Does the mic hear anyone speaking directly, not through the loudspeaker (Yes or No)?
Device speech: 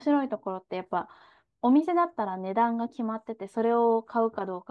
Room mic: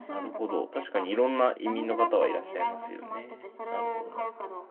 Yes